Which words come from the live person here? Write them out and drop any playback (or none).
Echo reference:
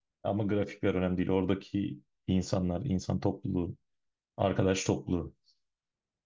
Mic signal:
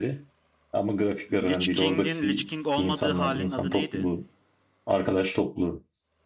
Lich King'in Lich King olmadığı halin adı neydi?